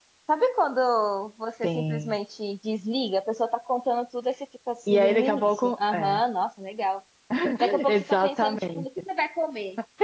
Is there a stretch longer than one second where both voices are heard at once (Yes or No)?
Yes